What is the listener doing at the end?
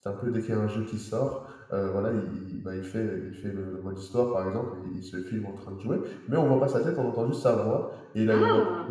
listening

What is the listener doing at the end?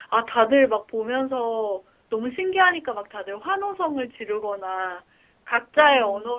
listening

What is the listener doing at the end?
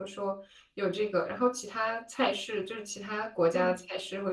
listening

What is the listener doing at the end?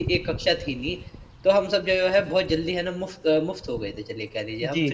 listening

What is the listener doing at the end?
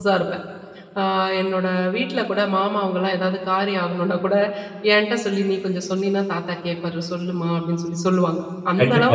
taking over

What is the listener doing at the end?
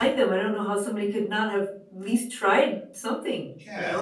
taking over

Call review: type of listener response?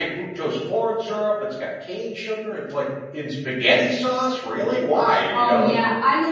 taking over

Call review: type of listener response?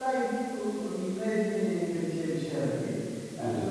listening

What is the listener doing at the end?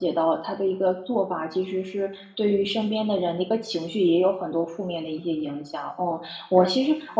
listening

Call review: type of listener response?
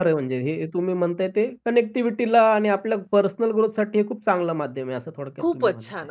taking over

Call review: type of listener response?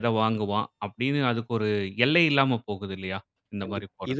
taking over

